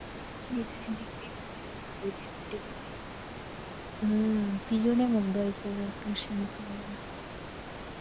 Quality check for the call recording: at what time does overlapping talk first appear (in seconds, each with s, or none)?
none